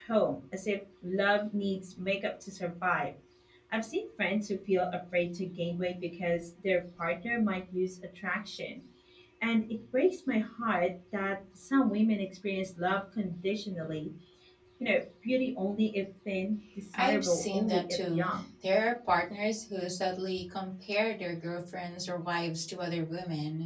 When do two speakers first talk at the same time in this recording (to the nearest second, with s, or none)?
17 s